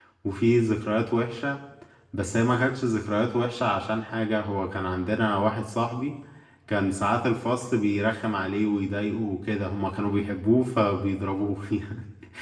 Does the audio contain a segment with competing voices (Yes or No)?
No